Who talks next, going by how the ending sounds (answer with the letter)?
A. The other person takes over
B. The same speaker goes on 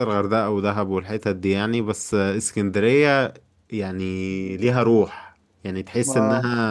B